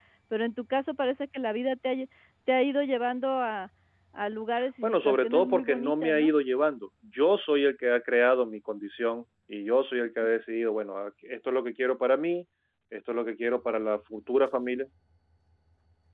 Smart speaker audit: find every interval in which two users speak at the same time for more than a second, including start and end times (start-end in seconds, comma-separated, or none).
4.8-6.4